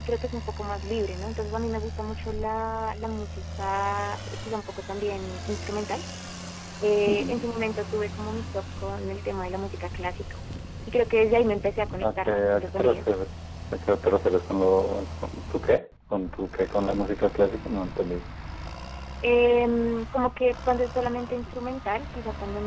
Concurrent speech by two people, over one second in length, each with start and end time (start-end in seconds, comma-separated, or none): 12.0-13.2